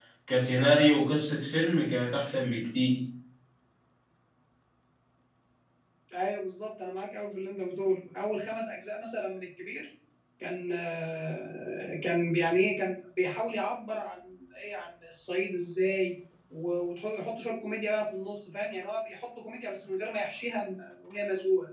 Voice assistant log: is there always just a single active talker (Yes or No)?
Yes